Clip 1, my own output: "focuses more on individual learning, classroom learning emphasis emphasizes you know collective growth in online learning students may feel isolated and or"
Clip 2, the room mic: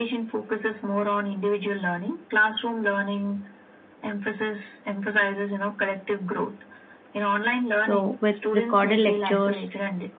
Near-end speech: present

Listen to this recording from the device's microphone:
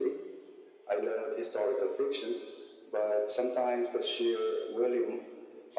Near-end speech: none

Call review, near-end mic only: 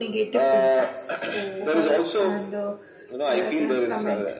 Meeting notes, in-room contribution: present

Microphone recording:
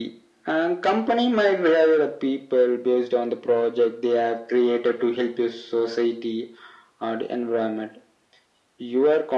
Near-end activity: none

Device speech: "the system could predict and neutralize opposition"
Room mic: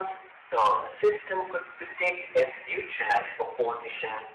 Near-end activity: none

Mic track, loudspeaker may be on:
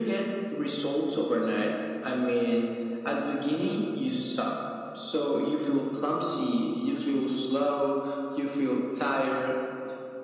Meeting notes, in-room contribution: none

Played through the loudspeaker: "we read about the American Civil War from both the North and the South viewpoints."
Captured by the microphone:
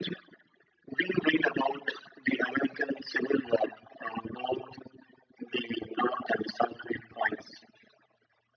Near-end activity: none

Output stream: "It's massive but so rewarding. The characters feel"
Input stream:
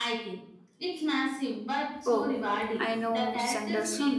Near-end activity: present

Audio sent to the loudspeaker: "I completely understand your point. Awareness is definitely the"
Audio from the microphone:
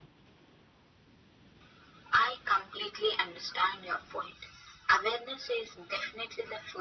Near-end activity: none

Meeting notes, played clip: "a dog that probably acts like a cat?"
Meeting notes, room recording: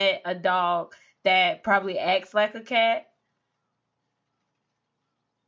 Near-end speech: none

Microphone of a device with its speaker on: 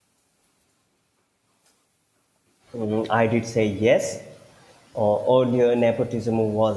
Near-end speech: present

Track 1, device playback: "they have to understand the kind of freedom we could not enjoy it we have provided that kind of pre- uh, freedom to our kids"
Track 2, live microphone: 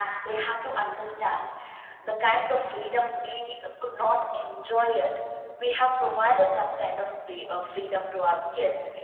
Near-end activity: none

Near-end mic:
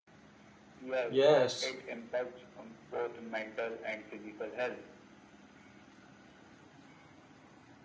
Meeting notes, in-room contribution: present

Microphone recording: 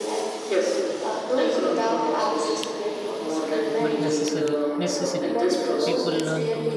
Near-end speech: present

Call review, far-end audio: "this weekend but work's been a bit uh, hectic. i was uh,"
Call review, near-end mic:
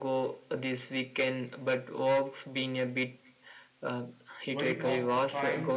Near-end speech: present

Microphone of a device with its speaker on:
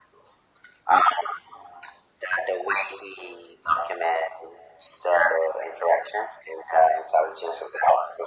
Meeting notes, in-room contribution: none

